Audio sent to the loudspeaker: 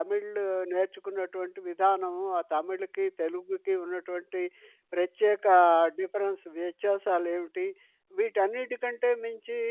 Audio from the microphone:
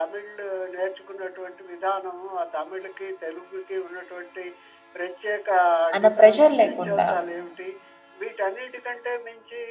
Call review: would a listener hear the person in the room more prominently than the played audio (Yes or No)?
Yes